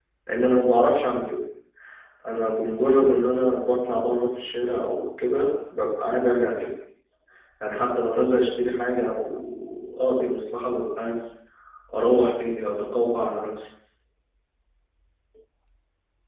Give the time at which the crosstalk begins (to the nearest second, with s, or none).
none